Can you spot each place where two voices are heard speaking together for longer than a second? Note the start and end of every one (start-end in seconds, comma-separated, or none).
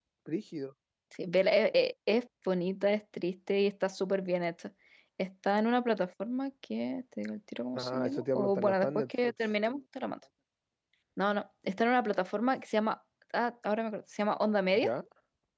7.7-9.3